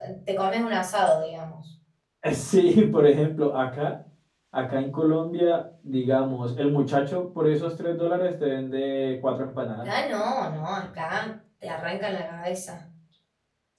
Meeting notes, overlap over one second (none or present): none